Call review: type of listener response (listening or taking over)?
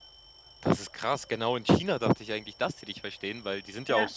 listening